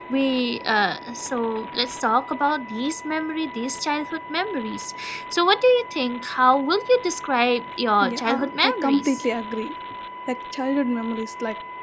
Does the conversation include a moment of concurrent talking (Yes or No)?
Yes